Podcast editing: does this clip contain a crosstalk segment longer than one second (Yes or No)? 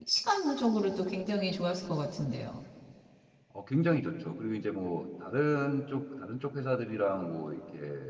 No